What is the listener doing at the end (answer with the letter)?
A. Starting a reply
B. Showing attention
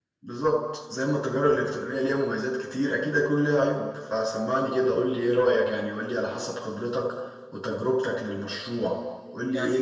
B